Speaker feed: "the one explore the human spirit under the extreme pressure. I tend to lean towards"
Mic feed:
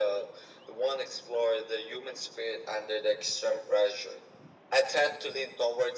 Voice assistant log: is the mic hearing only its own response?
Yes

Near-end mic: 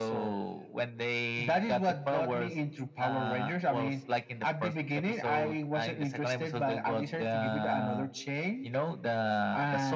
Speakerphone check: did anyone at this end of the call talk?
No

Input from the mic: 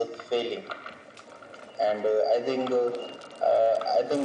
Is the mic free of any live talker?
Yes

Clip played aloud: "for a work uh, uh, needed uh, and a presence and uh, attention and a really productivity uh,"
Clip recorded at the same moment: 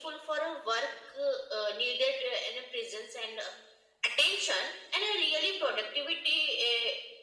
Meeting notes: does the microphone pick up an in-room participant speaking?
No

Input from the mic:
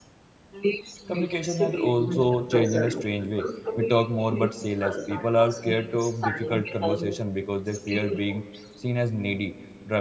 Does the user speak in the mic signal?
Yes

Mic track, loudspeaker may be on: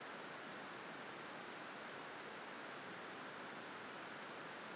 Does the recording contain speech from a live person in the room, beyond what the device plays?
No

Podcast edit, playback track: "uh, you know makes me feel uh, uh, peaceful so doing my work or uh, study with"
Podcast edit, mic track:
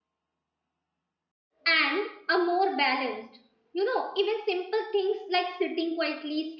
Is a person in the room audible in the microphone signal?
Yes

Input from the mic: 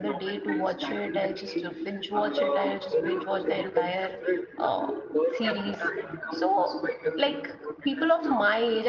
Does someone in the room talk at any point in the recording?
Yes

